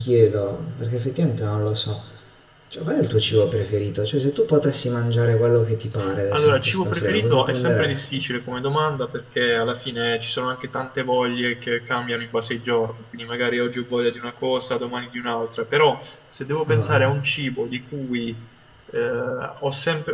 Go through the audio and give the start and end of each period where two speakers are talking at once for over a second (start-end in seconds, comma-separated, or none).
6.3-8.2